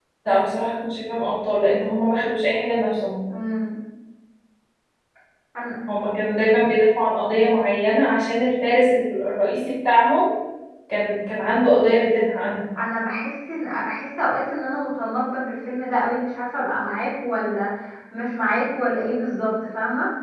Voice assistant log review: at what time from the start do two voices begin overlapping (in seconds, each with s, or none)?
none